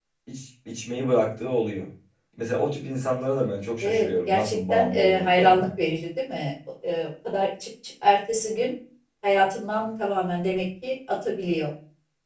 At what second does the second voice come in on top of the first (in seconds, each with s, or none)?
3.8 s